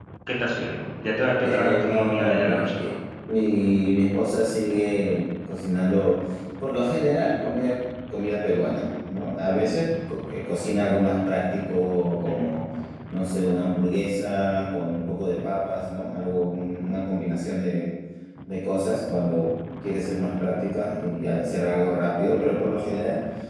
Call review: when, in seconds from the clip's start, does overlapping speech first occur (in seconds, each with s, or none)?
1.4 s